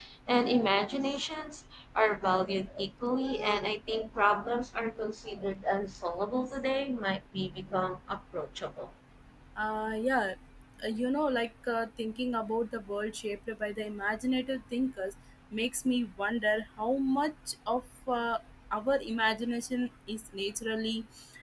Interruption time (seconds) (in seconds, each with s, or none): none